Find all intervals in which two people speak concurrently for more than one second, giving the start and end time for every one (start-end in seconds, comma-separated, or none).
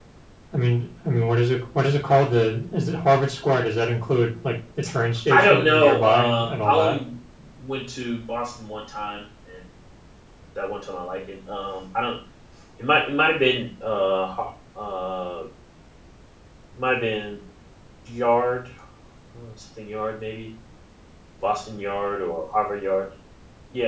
5.3-7.0